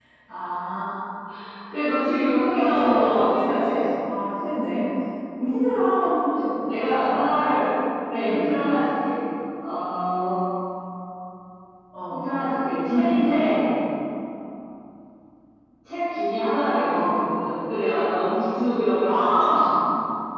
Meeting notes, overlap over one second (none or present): present